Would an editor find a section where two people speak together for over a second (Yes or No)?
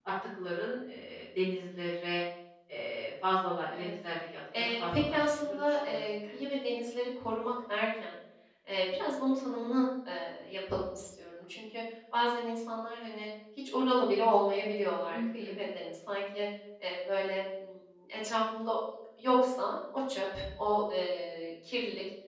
Yes